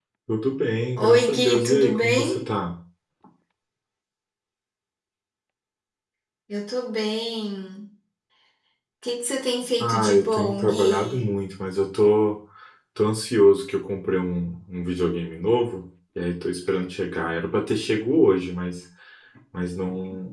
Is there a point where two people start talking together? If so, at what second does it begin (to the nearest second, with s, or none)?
1 s